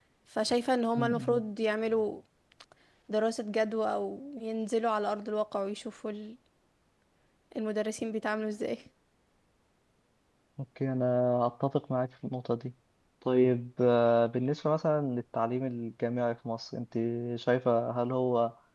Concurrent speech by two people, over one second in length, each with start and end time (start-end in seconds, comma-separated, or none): none